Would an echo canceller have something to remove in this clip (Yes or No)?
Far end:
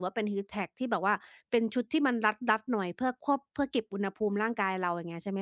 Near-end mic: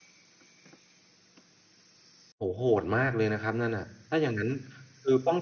No